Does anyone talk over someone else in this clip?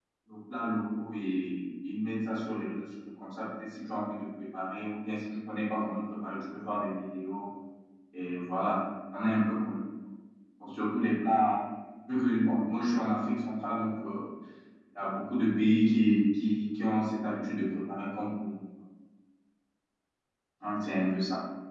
No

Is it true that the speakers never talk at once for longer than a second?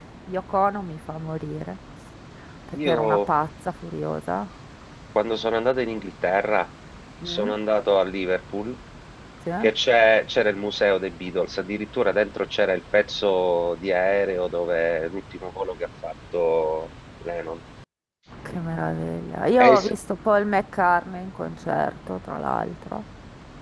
Yes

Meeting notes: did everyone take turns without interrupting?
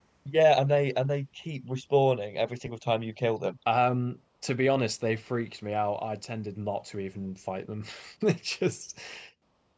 Yes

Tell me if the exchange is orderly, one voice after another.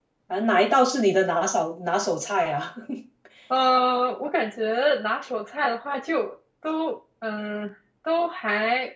Yes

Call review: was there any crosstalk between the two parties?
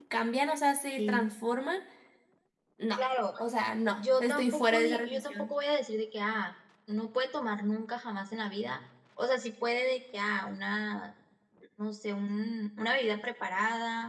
Yes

